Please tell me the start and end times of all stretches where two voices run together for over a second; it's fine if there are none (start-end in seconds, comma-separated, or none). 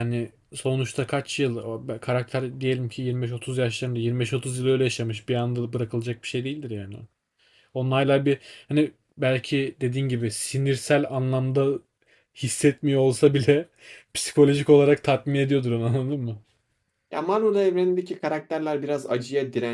none